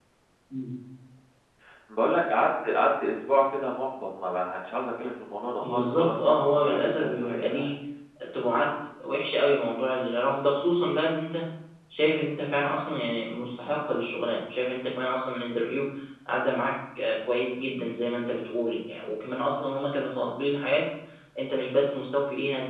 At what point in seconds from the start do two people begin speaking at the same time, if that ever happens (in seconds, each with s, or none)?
5.6 s